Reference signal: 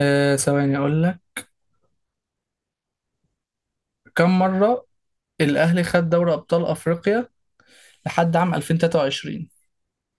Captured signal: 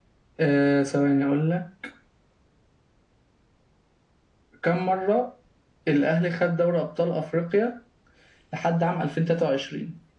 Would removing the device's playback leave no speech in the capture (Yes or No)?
Yes